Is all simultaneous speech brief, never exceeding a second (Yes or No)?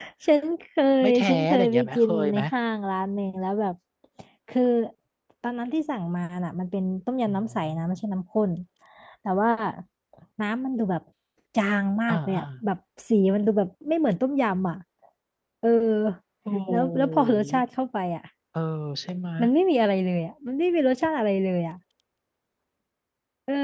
No